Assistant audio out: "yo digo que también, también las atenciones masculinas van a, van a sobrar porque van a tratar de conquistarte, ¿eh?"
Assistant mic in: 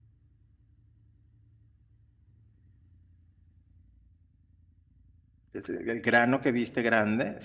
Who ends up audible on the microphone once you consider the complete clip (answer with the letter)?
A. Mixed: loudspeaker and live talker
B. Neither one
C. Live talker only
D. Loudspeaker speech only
C